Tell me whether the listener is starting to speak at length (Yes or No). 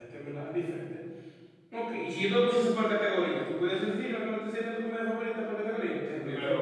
No